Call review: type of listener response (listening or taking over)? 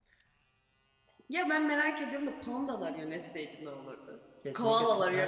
taking over